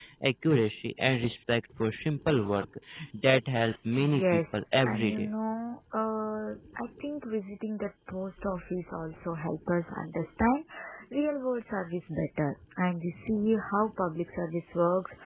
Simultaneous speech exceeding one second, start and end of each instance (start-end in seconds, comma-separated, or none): 4.0-5.3